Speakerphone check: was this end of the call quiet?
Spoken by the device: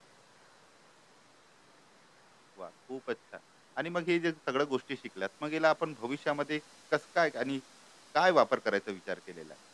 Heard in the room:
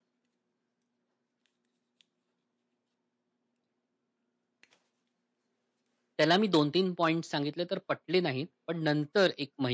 No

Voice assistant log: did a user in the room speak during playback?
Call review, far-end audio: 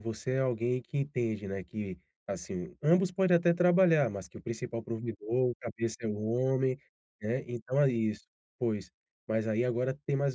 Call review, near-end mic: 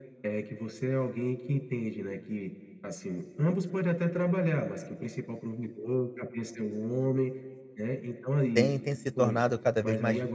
Yes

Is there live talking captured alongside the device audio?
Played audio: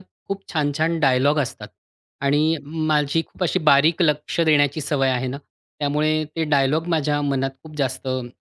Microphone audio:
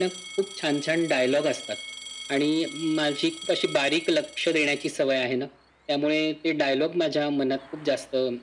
No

